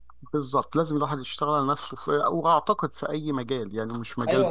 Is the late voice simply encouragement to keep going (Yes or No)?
No